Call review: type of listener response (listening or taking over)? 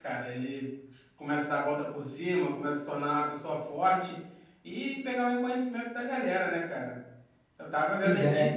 listening